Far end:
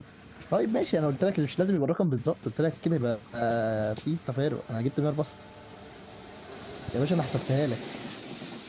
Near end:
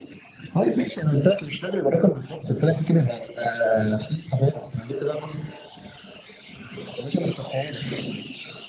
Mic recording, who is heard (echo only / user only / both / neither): echo only